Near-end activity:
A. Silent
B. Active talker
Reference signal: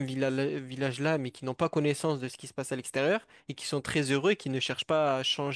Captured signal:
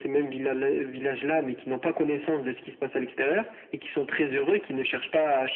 A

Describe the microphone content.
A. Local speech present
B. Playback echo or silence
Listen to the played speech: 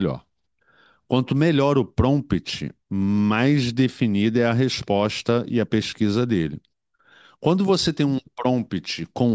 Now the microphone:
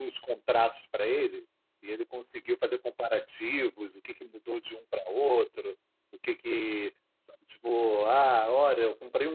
A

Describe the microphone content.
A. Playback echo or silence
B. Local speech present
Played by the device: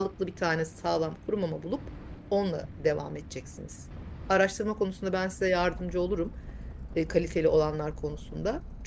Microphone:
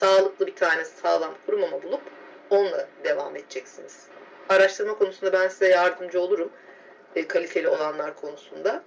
A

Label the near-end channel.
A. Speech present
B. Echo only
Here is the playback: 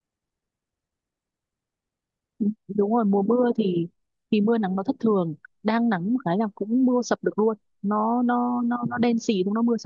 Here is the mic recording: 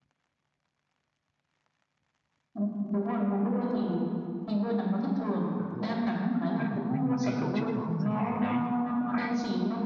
A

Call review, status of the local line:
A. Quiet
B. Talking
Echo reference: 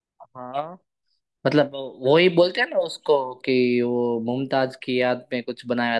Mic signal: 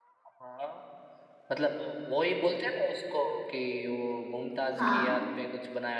B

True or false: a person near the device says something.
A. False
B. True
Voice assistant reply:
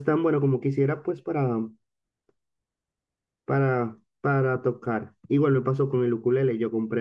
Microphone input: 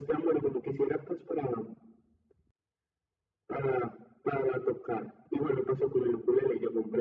A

